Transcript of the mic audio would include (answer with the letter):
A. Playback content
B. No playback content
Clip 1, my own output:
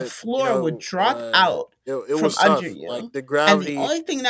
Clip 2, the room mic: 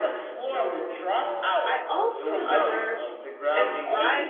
A